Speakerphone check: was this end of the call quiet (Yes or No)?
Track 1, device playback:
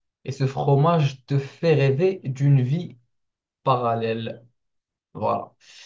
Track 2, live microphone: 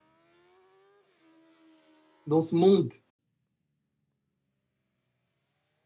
No